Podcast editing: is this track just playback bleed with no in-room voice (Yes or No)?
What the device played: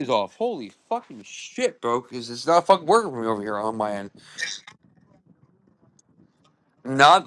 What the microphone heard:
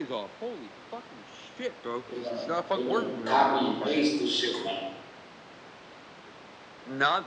No